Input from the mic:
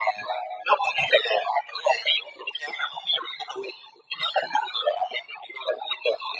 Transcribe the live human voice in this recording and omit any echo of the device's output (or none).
none